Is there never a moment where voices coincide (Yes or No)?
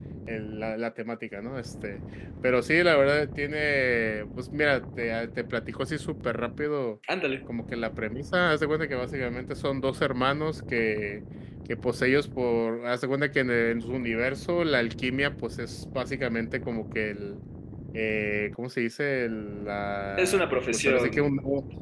No